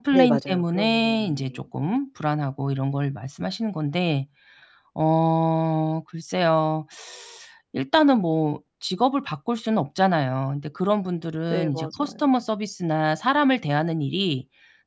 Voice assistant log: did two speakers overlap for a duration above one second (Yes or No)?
Yes